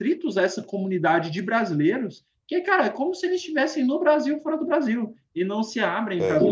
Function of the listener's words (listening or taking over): listening